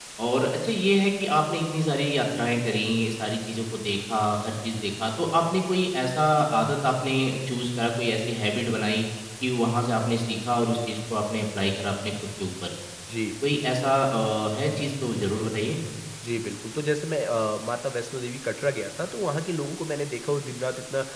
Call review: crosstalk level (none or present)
none